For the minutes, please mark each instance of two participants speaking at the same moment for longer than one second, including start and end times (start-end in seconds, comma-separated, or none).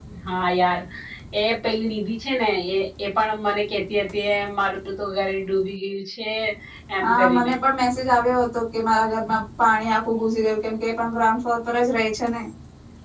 none